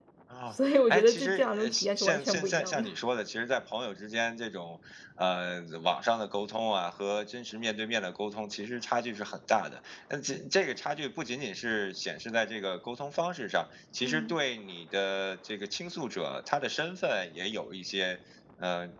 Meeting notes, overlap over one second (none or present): present